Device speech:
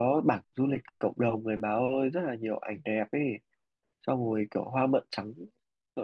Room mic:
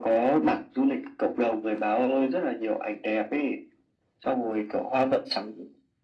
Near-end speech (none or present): none